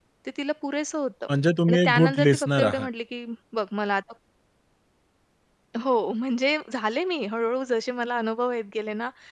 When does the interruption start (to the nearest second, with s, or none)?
2 s